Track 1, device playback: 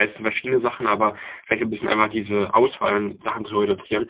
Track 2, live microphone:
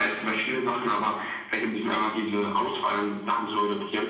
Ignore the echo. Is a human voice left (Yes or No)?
No